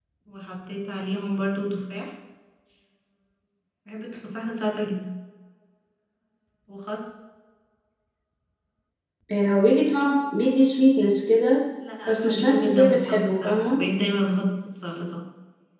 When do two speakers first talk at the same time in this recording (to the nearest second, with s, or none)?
12 s